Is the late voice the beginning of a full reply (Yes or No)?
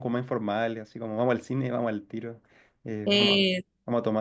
No